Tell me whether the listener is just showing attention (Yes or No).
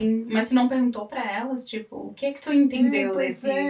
No